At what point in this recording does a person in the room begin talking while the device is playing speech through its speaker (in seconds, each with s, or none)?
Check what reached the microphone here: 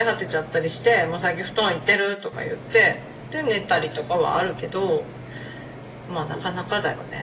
none